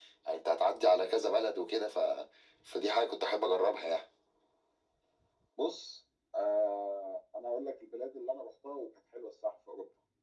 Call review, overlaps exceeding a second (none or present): none